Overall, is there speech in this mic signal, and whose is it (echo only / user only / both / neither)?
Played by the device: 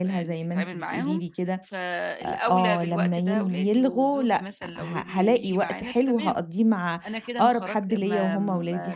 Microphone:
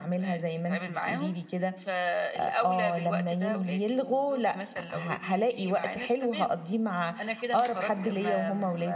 echo only